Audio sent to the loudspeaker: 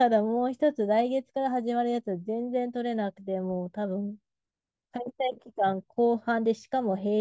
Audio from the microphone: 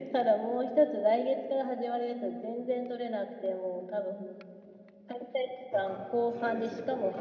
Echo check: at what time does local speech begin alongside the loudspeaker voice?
5.7 s

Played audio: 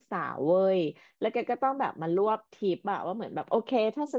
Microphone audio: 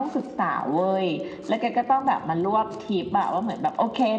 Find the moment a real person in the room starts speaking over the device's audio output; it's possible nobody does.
none

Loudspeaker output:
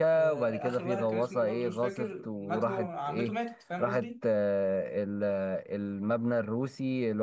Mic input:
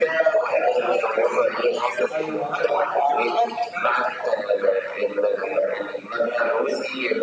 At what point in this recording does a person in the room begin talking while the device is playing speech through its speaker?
2.1 s

